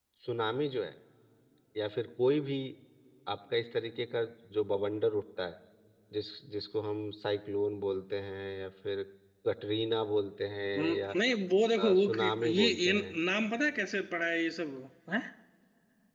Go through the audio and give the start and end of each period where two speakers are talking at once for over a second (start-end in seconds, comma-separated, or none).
11.8-13.2